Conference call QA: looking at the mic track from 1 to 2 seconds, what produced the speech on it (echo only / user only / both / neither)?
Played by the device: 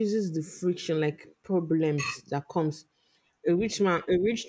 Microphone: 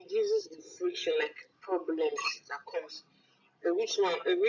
echo only